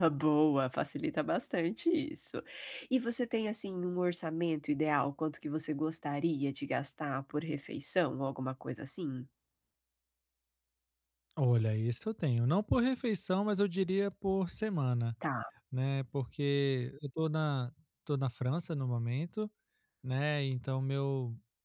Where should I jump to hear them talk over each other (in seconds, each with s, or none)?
none